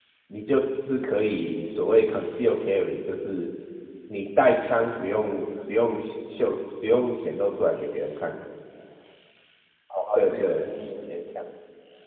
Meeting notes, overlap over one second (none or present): none